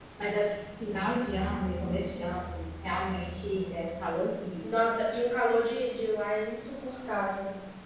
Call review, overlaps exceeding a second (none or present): none